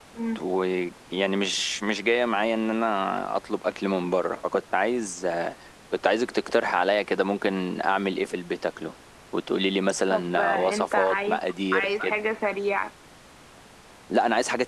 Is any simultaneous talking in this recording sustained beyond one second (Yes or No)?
Yes